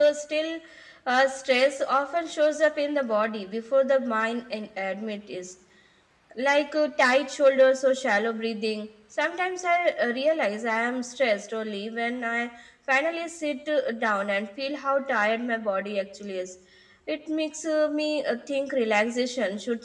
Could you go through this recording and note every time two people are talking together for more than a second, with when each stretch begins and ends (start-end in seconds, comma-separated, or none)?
none